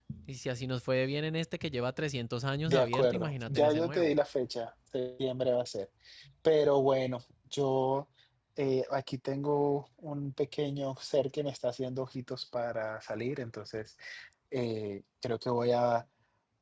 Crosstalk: present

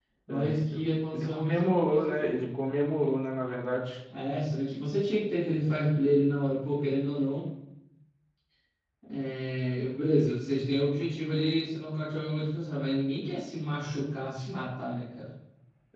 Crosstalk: present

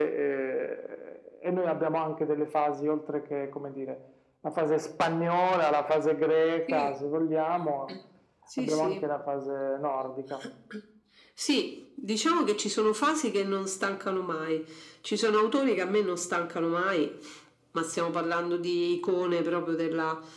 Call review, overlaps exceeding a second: none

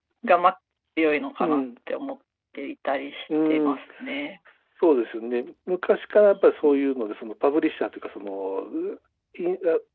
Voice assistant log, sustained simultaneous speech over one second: none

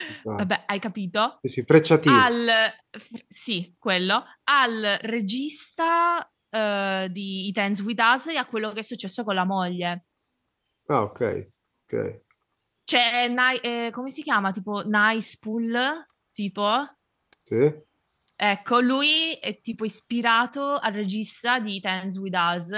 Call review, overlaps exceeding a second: none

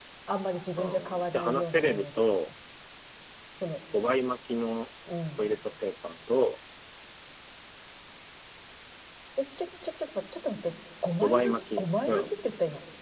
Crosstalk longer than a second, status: present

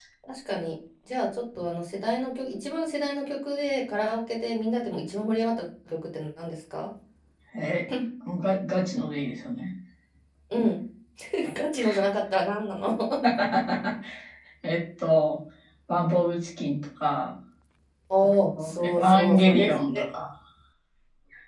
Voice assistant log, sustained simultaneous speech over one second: present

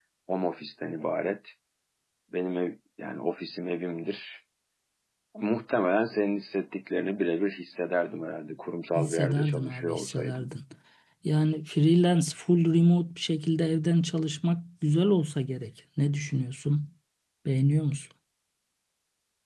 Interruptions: present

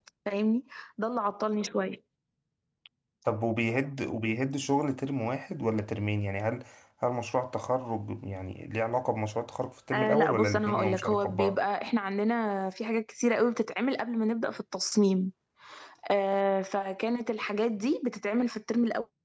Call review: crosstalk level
present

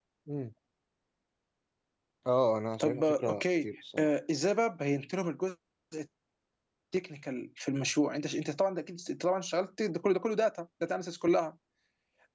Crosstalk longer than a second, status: present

